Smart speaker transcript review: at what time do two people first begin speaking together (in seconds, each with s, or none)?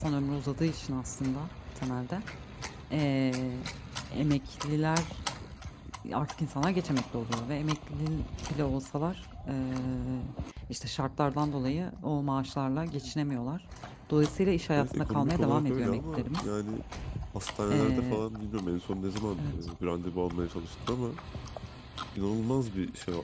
14.8 s